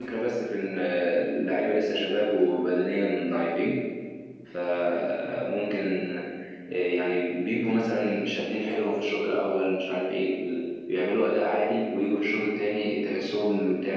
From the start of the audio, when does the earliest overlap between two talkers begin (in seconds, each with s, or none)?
none